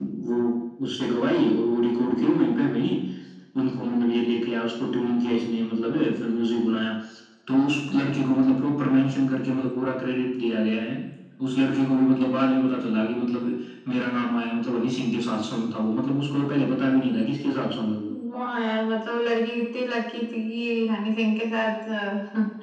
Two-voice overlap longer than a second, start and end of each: none

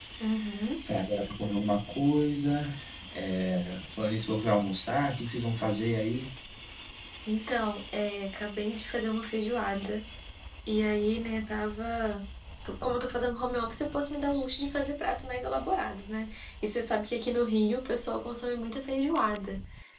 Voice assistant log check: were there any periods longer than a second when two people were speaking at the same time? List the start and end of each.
none

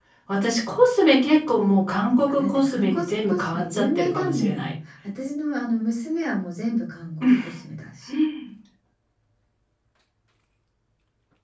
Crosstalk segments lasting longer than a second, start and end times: 2.3-4.7

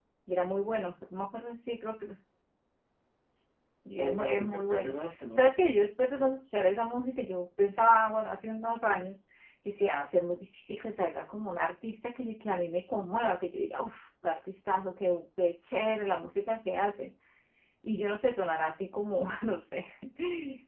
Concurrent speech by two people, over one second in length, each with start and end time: 3.9-5.4

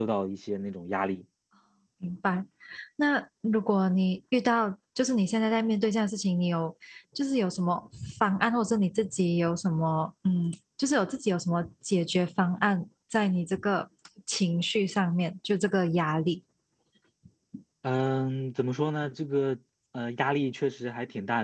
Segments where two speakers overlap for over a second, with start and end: none

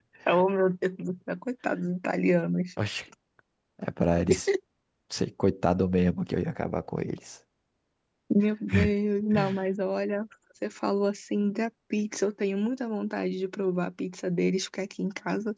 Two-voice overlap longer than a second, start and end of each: none

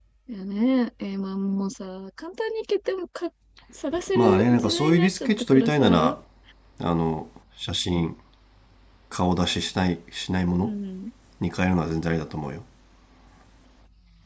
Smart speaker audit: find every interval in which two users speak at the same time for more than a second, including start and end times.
4.1-6.2

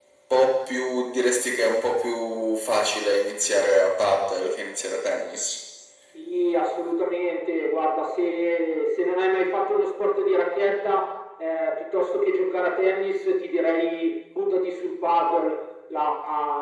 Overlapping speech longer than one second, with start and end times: none

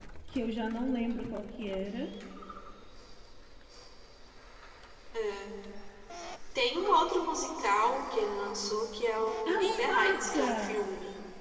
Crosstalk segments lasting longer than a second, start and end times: 9.5-10.8

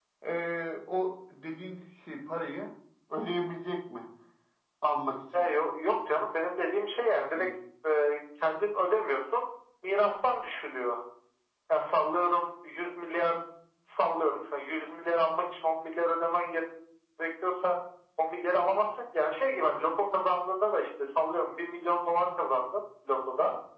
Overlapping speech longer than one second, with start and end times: none

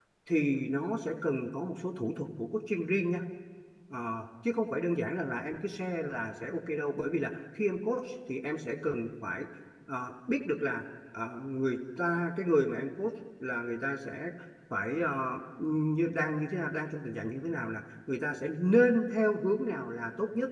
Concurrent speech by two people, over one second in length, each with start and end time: none

